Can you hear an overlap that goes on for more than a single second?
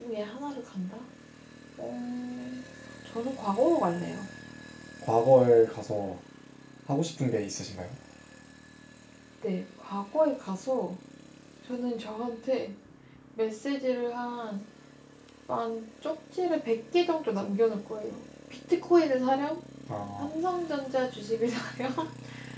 No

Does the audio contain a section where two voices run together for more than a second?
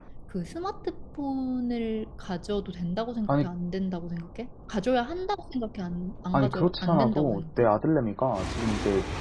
Yes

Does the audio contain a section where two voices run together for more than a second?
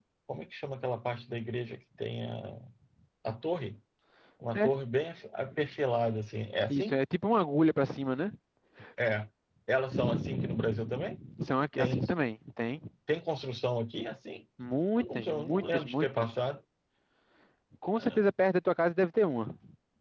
Yes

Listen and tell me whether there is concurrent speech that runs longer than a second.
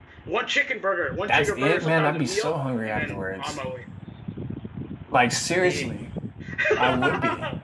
Yes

